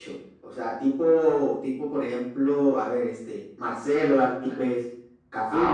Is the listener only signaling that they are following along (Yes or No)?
No